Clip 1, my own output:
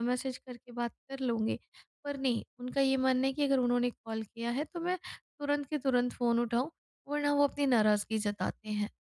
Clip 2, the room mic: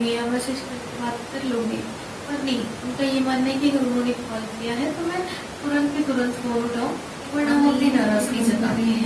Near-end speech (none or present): present